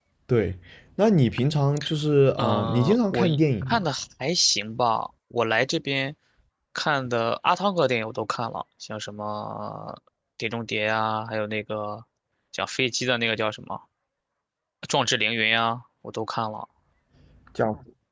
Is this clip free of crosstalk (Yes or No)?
No